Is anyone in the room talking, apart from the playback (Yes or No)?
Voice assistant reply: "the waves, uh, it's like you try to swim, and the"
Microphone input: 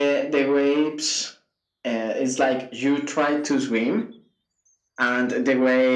No